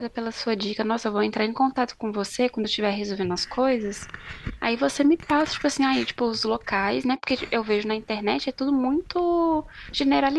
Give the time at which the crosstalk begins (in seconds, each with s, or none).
none